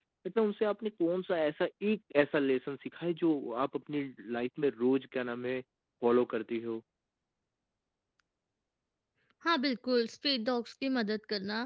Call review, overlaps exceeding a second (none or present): none